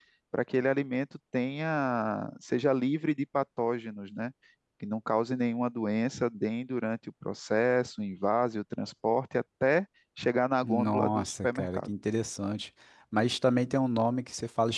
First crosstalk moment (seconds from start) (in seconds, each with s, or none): 10.6 s